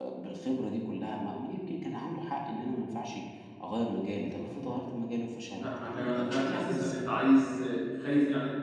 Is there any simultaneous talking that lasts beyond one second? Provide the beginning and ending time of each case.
5.6-7.1

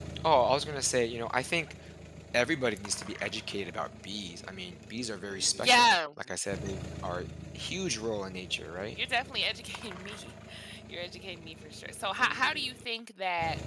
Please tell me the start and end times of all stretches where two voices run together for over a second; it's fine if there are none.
none

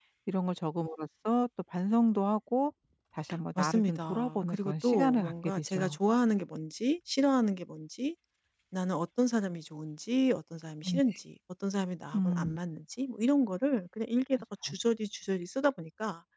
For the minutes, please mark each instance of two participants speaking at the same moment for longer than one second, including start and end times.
3.6-6.0

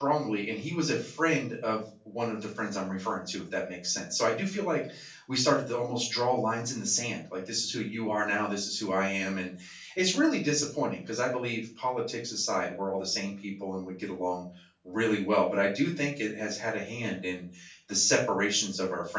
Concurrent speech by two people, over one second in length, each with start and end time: none

